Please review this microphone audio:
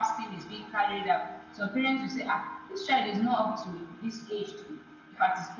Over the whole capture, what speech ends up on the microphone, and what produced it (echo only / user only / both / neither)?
echo only